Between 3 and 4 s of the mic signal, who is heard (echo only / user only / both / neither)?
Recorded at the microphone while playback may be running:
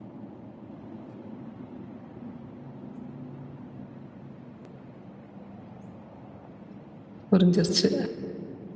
neither